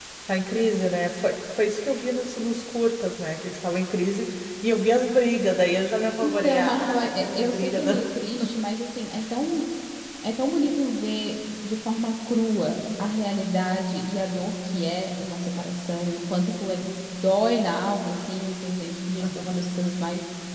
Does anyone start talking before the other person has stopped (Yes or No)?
Yes